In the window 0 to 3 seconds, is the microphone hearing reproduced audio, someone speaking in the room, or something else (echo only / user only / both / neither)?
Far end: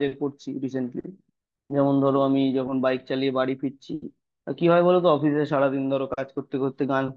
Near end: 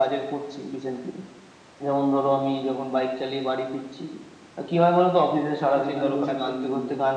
echo only